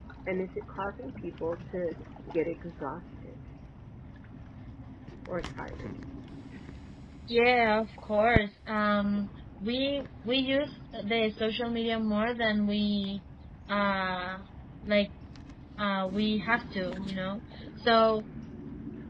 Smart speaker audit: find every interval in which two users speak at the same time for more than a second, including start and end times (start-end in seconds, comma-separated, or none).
none